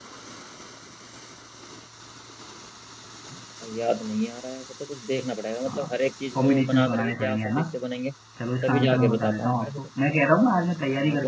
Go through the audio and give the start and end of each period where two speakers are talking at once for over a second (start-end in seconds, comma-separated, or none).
6.4-7.6, 8.6-9.9